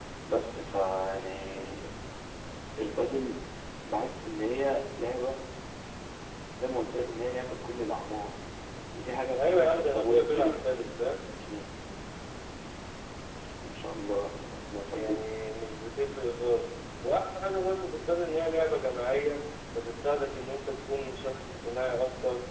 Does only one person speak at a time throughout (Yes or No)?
No